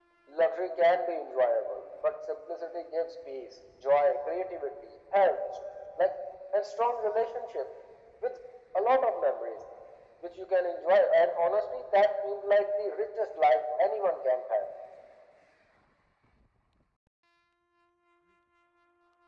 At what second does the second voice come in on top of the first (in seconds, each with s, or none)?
none